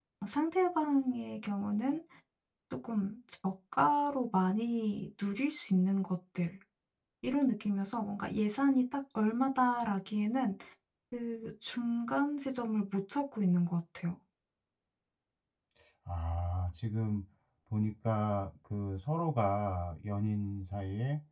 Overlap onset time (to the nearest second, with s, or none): none